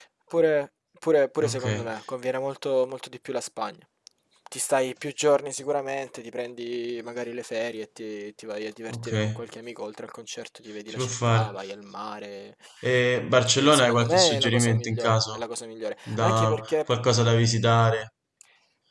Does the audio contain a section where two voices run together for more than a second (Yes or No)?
Yes